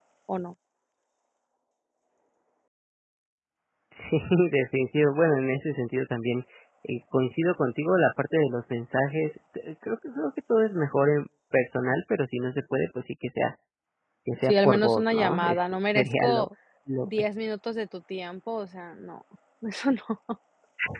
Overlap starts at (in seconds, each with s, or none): 14.4 s